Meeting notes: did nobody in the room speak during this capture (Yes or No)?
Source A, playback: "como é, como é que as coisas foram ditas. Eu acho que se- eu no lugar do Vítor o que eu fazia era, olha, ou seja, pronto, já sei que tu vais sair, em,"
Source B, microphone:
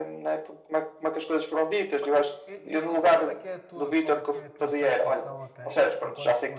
No